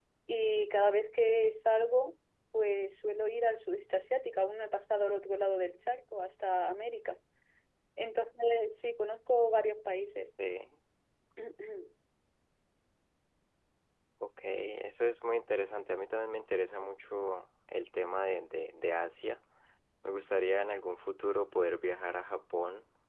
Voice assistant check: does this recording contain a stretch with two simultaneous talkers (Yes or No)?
No